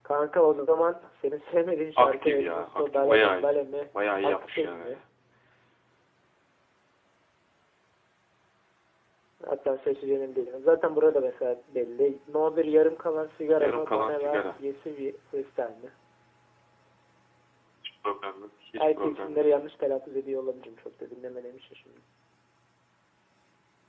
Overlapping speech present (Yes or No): Yes